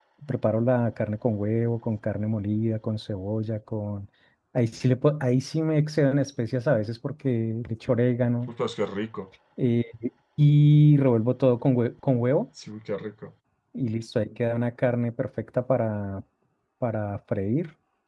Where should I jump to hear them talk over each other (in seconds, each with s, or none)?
none